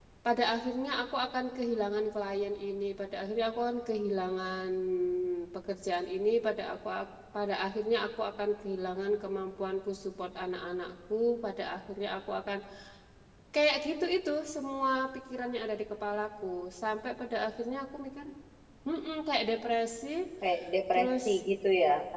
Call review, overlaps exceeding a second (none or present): none